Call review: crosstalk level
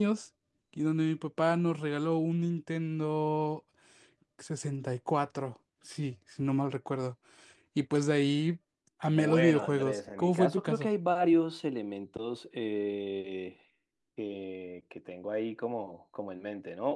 present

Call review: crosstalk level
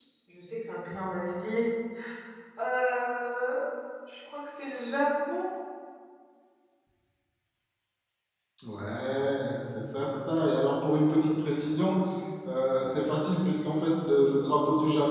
none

